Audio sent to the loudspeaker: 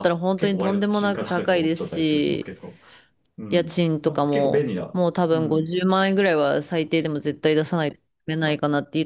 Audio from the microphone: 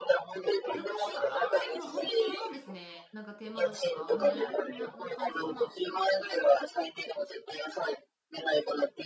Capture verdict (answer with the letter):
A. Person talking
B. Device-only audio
A